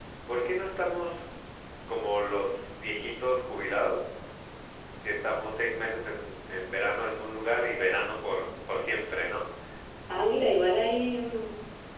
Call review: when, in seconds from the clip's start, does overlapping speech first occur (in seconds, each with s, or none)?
none